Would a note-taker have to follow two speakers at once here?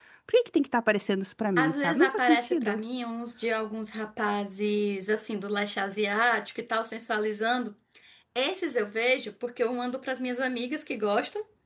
Yes, from 1.6 s

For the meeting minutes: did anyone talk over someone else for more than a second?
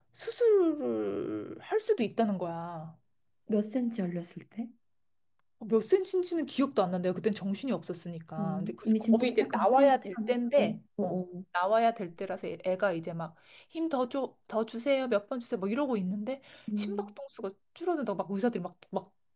Yes, from 8.4 s

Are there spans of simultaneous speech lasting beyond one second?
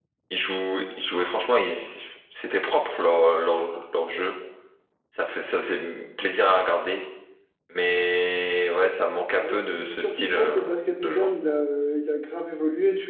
Yes, from 9.3 s

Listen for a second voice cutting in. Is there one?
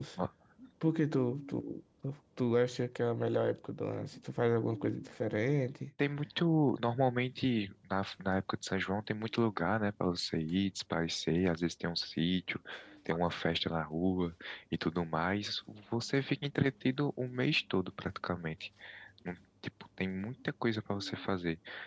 No

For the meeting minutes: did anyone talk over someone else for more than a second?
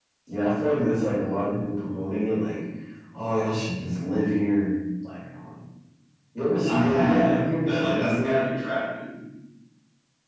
Yes, from 6.6 s

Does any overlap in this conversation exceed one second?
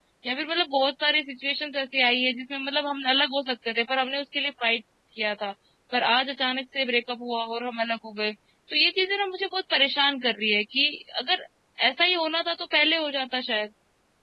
No

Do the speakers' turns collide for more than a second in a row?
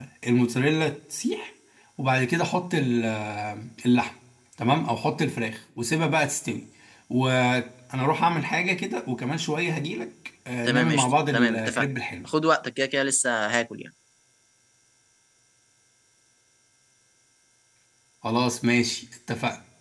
Yes, from 10.6 s

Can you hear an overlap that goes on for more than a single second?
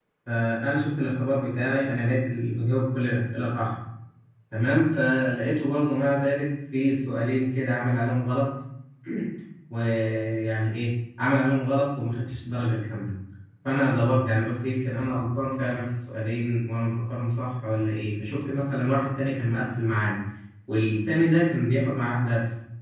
No

